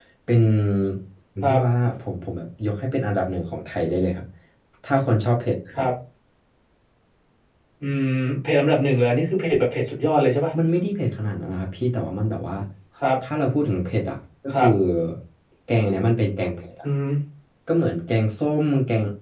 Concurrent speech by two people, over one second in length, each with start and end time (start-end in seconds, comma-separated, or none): none